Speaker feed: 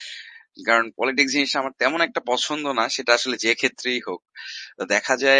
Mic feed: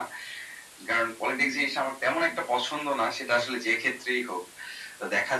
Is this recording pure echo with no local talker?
Yes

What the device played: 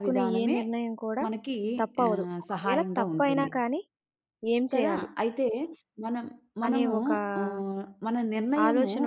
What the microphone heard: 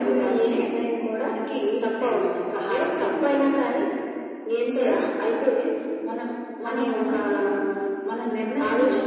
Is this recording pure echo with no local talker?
Yes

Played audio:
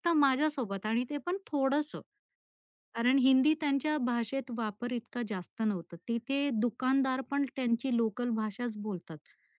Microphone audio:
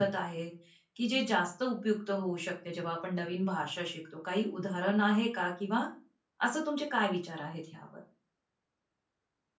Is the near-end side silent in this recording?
No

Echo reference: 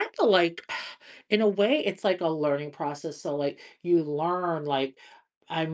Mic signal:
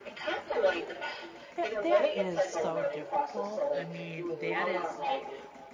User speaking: Yes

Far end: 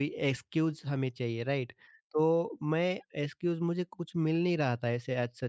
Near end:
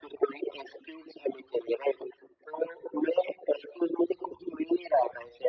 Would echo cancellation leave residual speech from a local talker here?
No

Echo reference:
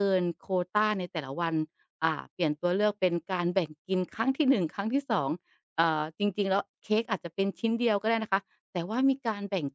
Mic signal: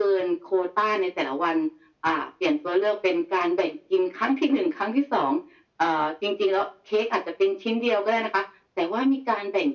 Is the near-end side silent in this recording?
Yes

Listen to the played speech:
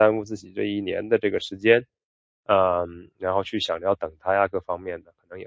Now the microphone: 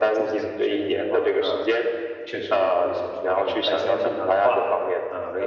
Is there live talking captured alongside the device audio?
Yes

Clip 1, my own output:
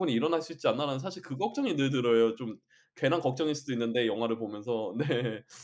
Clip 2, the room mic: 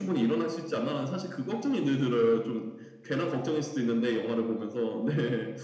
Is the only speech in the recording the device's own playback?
Yes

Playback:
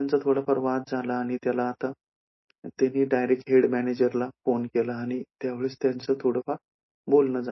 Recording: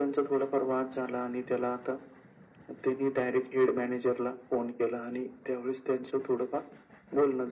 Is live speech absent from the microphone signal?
Yes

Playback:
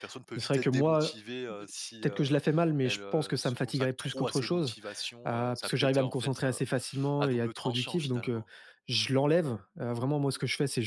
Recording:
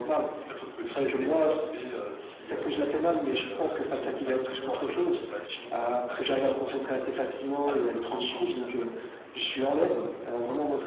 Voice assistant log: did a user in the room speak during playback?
No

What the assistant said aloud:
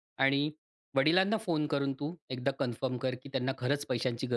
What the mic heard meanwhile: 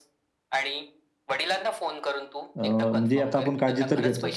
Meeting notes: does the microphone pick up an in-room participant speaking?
Yes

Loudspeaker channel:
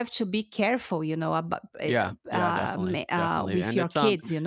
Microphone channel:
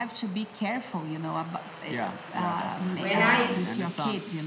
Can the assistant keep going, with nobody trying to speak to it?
No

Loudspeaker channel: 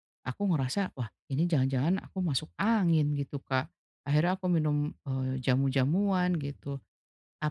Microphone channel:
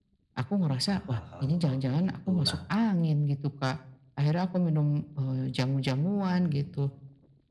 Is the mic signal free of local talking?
No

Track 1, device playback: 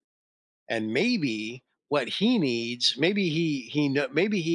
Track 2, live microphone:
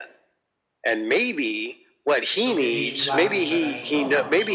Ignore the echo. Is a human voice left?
Yes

